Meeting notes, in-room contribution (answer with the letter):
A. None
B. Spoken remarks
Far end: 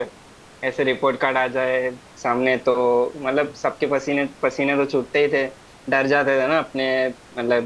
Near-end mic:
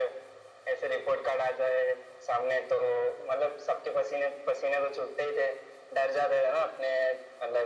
A